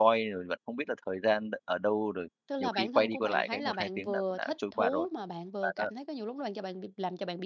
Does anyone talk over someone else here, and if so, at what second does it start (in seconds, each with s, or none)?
2.5 s